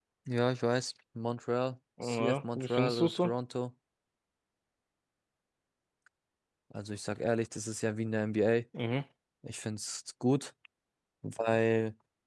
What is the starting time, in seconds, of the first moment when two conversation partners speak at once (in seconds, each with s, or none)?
2.0 s